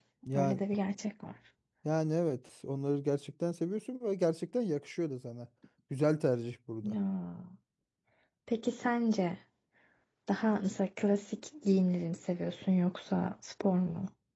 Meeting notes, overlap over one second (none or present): none